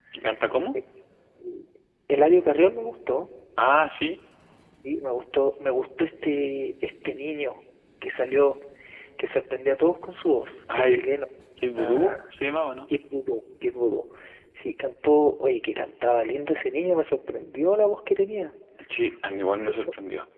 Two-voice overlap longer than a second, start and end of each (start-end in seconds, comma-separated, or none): none